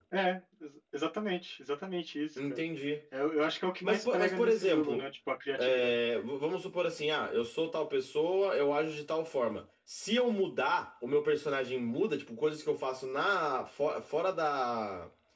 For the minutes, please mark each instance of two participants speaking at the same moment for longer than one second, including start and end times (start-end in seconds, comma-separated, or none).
3.8-5.1